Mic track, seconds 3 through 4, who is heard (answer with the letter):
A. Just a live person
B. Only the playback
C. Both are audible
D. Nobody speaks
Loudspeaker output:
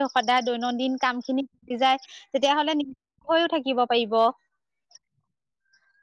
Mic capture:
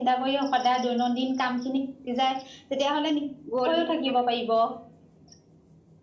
C